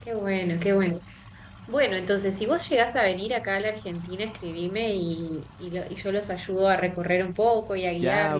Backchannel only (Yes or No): No